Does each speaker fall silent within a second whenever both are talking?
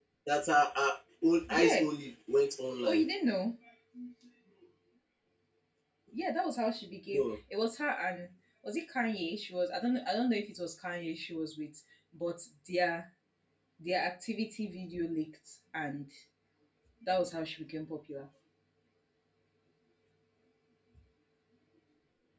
Yes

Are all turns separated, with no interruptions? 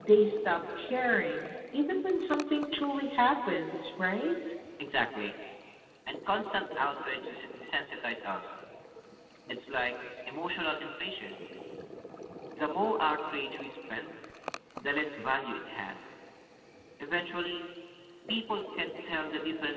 Yes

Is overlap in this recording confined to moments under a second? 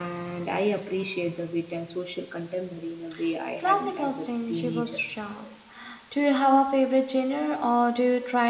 No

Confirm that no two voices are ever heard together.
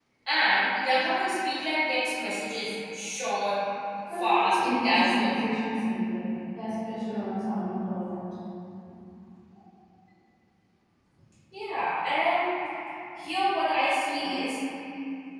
No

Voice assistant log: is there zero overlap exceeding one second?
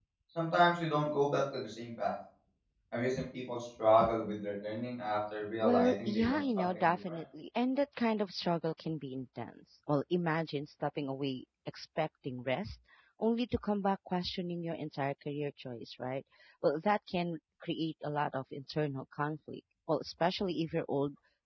No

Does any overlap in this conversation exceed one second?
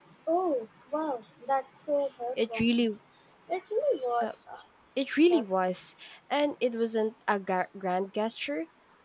No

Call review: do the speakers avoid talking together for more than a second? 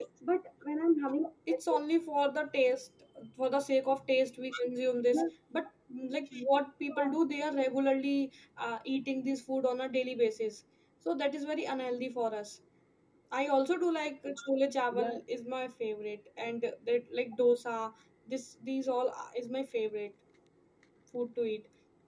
Yes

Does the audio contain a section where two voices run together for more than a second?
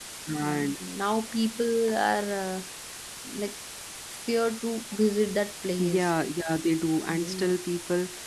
No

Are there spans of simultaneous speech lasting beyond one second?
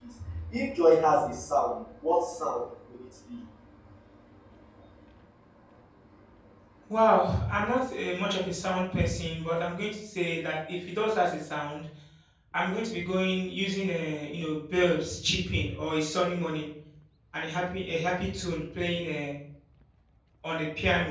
No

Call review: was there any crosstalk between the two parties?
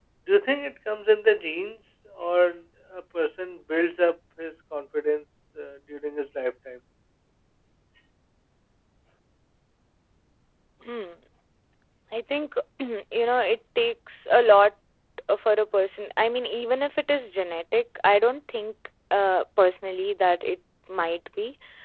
No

